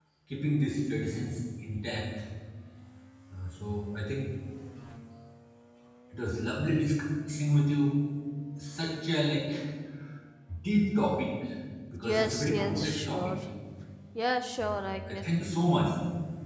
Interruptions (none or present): present